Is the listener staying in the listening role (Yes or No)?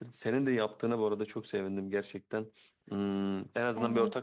No